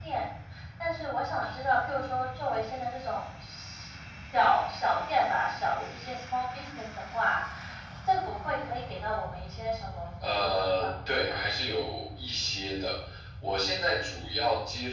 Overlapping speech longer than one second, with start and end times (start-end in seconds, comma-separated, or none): 10.2-11.5